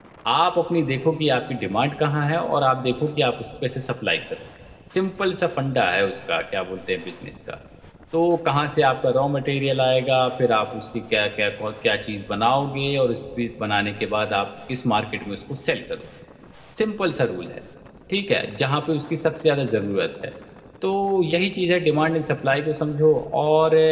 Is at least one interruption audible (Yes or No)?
No